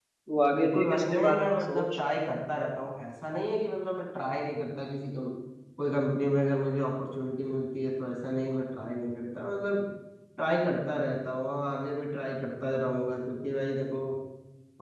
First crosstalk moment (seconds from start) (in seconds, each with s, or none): 0.5 s